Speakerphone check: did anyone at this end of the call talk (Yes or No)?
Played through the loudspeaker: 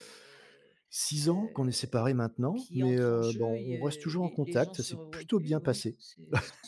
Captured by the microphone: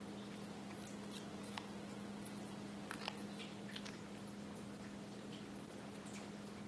No